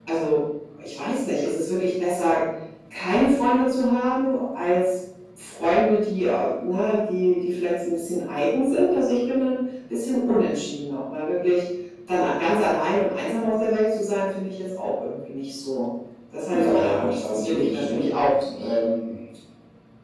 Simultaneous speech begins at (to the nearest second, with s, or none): 16 s